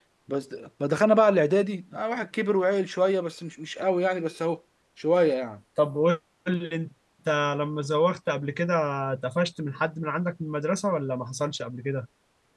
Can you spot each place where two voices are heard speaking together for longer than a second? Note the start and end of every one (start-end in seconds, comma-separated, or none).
none